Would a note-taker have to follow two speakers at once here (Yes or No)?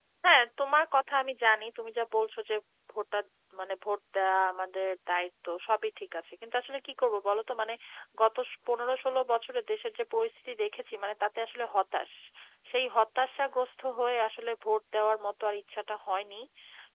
No